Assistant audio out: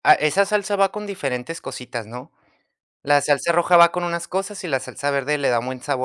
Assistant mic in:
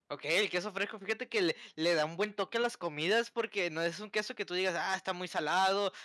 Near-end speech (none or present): present